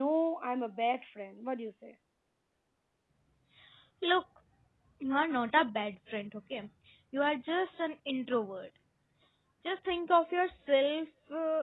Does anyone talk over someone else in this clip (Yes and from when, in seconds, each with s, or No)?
No